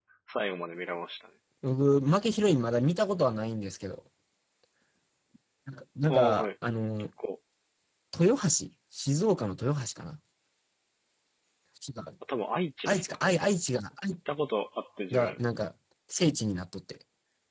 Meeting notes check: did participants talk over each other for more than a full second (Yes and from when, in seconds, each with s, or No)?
No